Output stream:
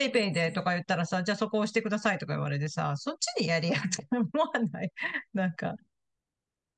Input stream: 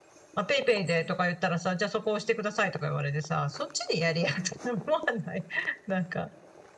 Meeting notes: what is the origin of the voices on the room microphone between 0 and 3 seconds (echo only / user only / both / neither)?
echo only